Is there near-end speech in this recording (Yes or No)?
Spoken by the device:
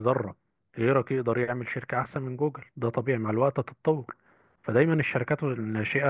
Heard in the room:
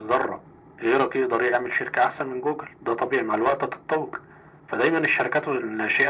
No